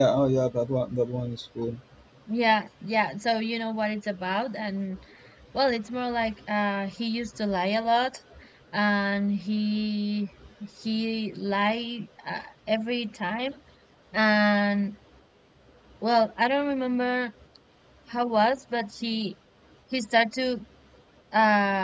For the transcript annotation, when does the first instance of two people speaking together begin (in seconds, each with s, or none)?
none